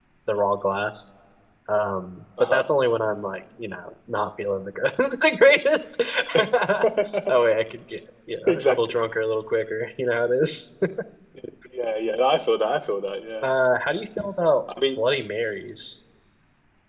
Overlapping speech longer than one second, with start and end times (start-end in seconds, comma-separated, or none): none